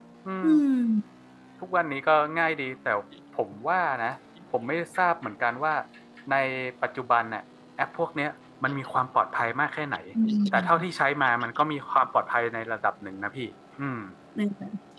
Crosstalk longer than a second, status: none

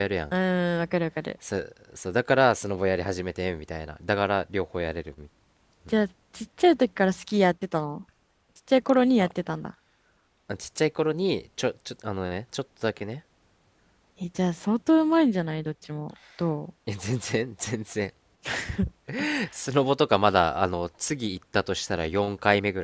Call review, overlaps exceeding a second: none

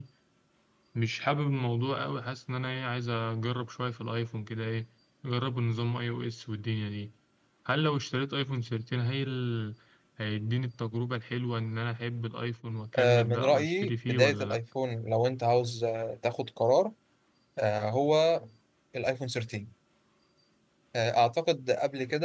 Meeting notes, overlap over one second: present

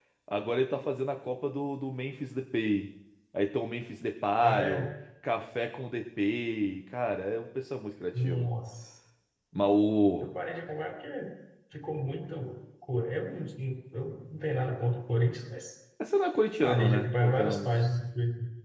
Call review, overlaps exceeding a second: present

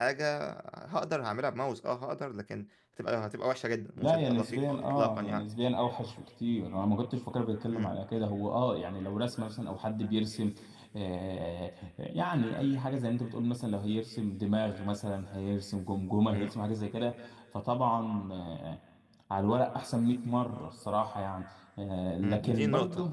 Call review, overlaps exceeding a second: present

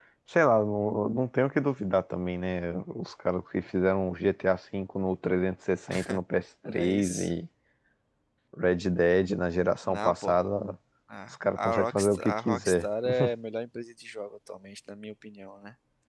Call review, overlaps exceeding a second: present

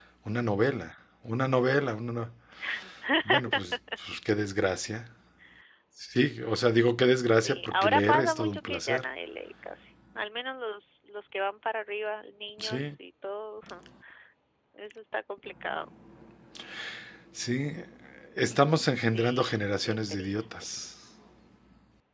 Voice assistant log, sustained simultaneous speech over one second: present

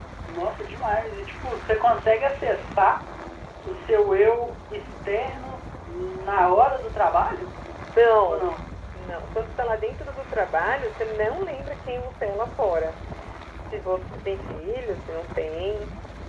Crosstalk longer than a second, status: none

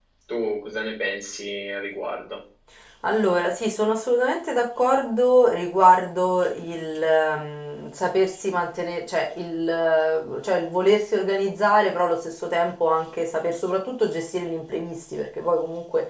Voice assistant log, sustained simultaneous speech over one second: none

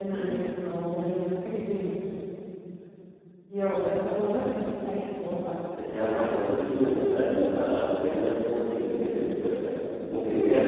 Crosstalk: none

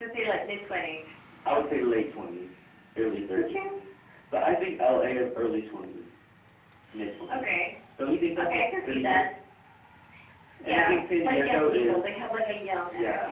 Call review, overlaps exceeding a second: present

